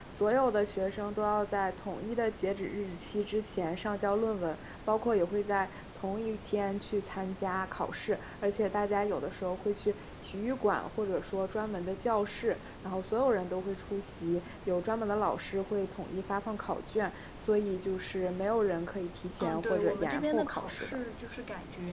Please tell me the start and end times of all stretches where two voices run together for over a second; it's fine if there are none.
19.4-21.0

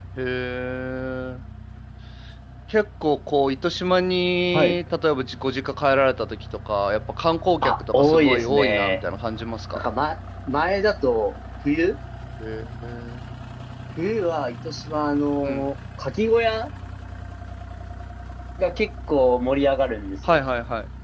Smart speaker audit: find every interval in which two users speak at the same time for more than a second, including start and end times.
7.6-9.0

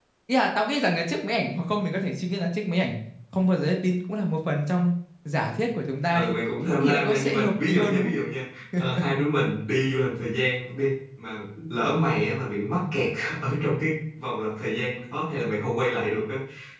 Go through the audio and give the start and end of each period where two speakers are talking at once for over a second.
6.8-8.2

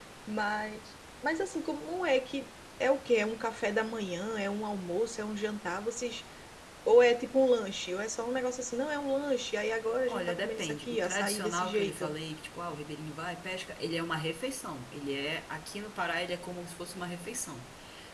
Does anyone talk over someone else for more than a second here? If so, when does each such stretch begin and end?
10.1-12.1

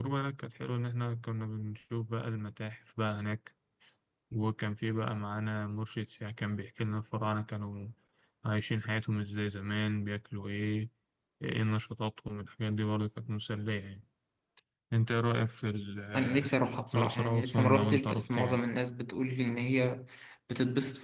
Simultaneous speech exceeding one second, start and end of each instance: 16.9-18.6

